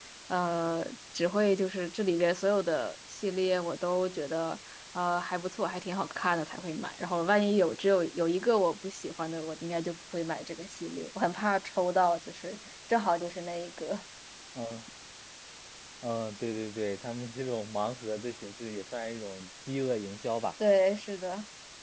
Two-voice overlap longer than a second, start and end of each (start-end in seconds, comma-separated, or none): none